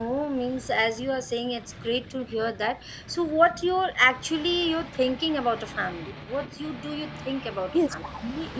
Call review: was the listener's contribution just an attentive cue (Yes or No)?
No